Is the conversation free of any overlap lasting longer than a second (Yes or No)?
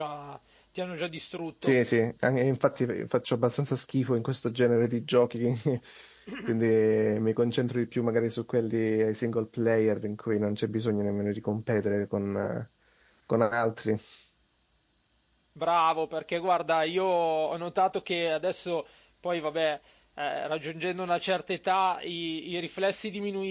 Yes